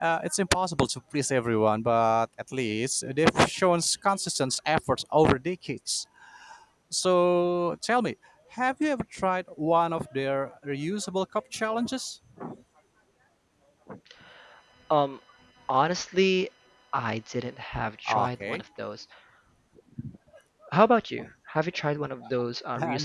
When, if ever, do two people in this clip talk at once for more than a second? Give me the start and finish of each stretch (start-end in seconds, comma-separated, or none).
none